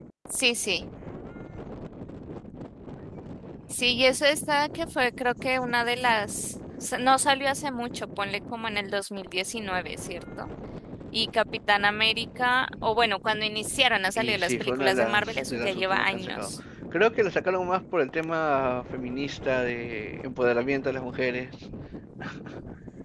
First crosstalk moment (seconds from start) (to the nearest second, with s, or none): 14 s